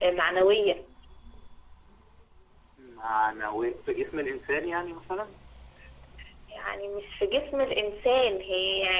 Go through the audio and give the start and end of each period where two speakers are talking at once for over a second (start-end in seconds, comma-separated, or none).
none